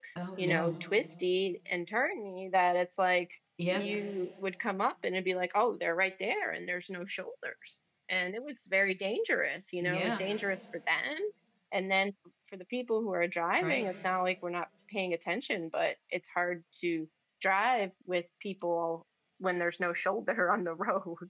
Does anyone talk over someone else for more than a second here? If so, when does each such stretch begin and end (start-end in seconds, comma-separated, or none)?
none